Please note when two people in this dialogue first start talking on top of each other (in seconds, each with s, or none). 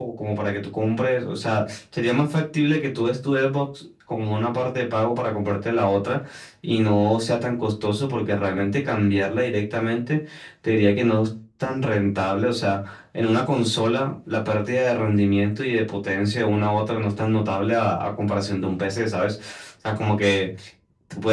none